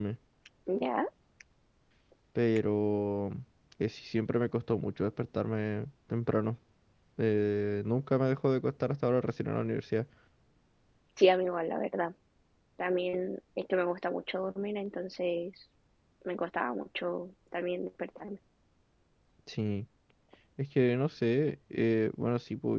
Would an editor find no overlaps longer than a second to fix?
Yes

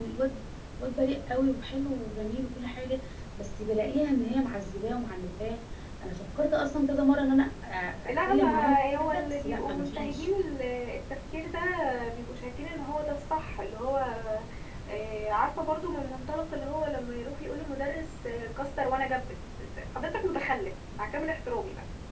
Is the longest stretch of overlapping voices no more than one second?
No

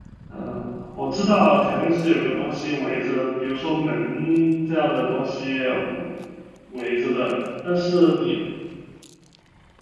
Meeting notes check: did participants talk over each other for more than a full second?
No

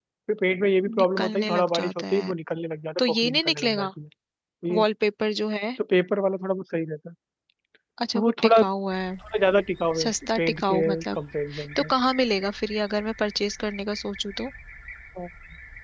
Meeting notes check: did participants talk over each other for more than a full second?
Yes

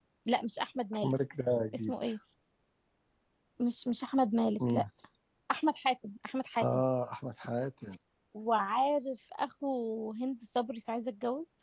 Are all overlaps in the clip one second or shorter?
Yes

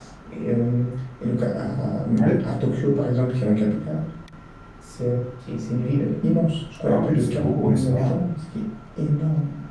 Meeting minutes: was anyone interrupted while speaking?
Yes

